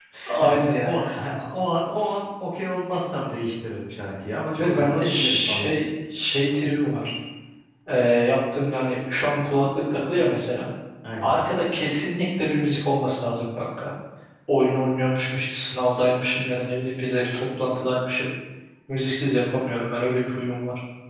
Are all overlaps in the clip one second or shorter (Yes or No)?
No